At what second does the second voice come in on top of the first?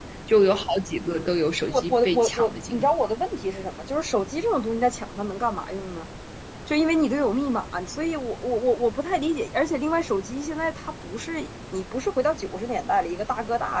1.7 s

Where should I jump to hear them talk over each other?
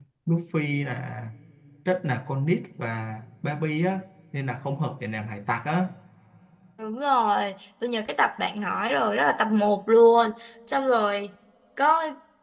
none

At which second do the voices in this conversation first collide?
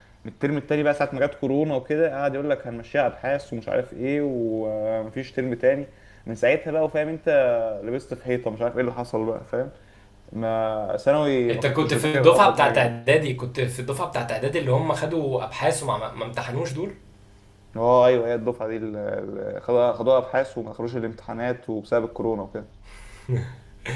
11.5 s

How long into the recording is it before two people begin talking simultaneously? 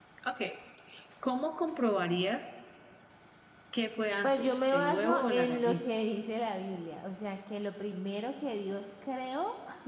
4.2 s

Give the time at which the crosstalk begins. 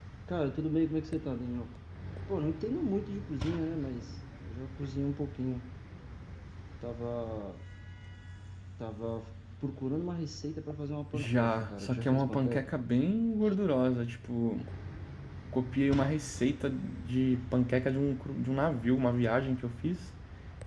11.1 s

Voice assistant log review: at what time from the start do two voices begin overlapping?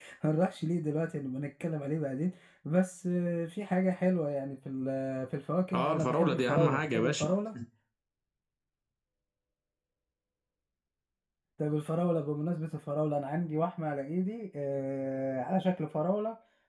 5.7 s

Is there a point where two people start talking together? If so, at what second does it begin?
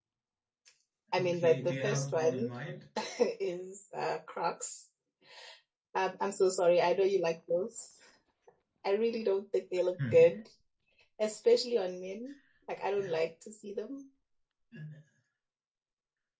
1.1 s

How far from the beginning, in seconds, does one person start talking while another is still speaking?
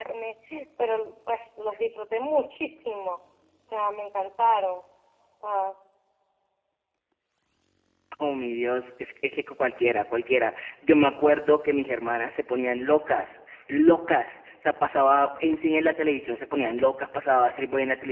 none

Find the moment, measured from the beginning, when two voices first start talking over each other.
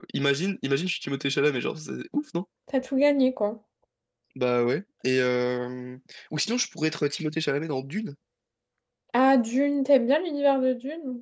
none

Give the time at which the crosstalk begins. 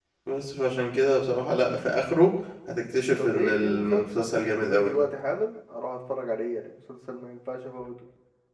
3.2 s

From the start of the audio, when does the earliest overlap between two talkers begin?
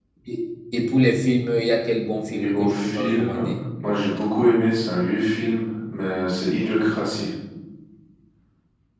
2.2 s

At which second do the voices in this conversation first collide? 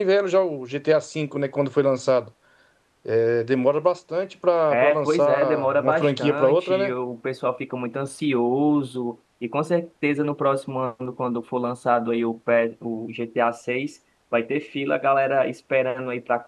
4.7 s

